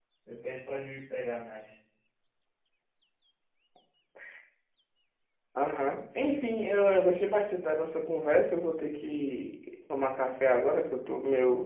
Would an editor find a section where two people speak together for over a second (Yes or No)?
No